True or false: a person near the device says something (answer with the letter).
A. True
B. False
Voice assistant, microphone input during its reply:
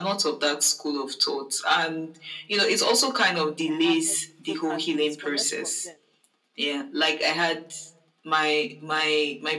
A